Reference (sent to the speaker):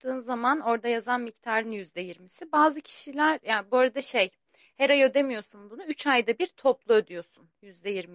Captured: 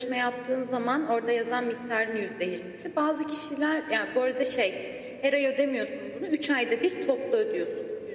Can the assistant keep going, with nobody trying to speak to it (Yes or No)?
Yes